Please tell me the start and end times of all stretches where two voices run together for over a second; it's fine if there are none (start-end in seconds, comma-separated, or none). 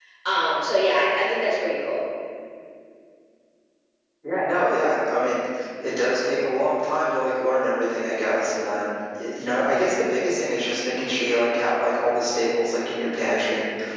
none